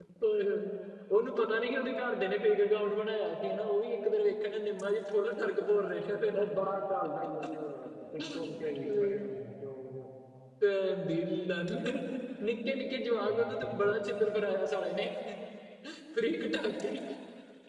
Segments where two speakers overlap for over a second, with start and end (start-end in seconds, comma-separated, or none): none